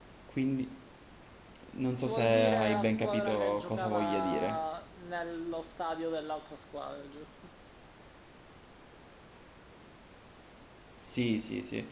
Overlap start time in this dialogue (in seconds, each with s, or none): 2.0 s